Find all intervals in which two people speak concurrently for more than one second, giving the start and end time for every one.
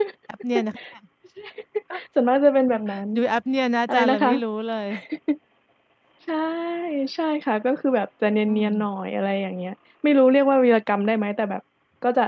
none

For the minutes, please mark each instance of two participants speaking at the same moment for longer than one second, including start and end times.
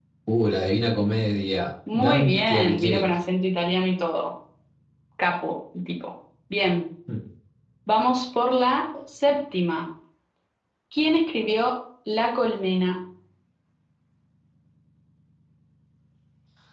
1.9-3.1

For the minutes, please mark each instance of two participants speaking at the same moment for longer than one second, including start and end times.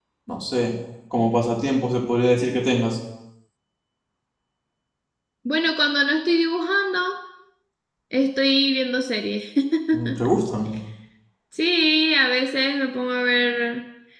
none

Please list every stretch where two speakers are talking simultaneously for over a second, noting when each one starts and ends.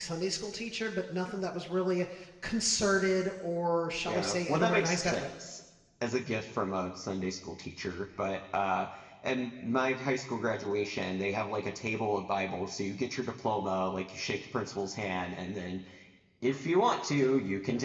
4.1-5.3

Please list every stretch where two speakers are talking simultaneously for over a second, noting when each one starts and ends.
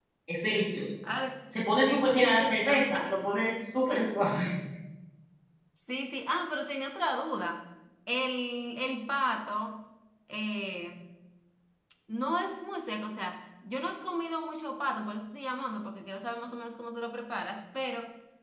1.9-3.3

